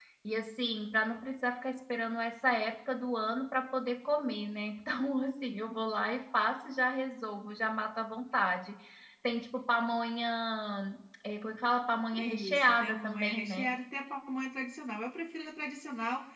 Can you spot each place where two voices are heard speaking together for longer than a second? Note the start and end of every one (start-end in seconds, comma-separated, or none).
12.2-13.7